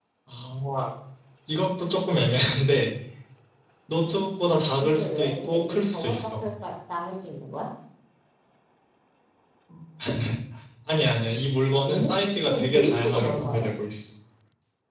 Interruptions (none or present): present